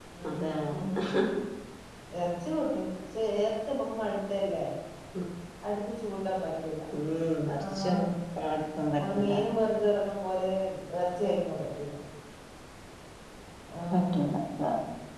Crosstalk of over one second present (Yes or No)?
No